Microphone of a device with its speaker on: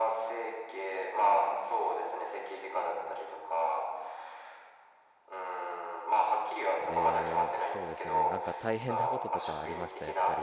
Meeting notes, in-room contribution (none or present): present